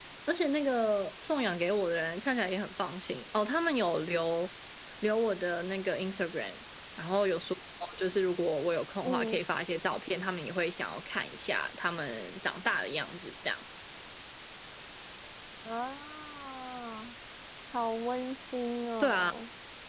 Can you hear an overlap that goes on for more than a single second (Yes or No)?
No